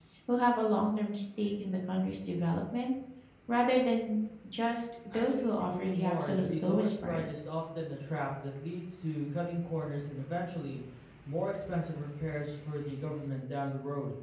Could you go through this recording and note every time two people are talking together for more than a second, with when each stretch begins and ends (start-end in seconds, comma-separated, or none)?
5.1-7.4